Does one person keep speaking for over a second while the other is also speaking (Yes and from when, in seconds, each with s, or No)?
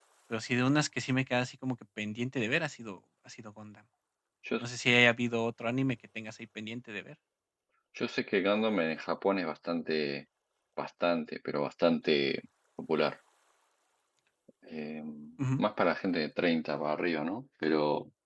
No